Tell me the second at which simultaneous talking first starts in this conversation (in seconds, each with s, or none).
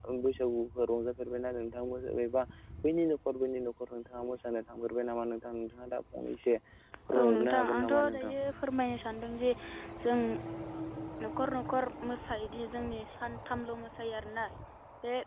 7.1 s